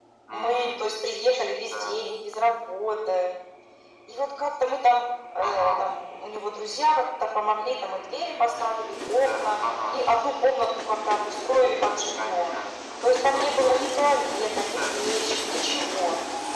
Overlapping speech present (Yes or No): Yes